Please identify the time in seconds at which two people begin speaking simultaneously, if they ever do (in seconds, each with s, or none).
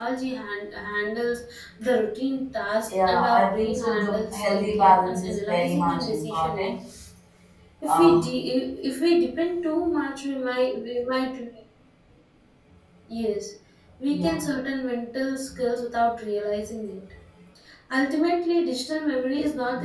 2.9 s